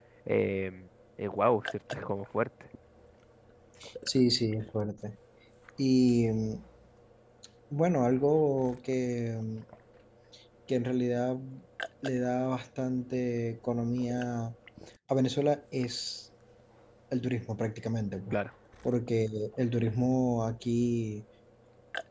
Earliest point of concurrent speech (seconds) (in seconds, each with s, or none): none